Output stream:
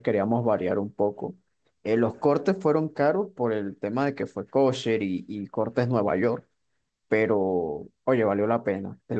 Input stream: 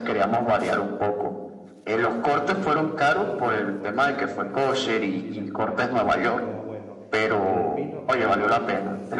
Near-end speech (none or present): present